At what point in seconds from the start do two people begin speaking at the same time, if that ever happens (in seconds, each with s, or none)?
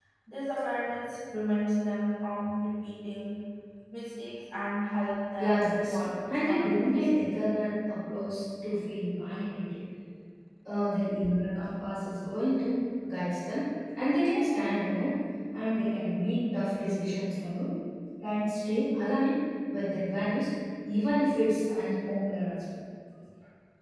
5.4 s